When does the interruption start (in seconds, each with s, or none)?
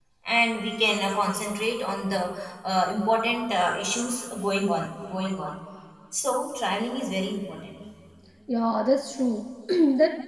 none